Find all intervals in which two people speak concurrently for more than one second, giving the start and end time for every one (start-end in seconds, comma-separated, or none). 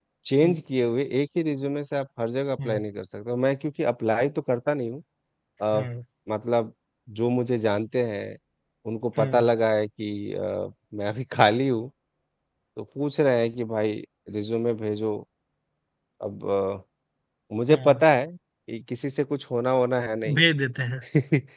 none